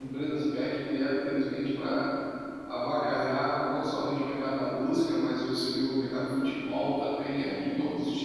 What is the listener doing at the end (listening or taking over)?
listening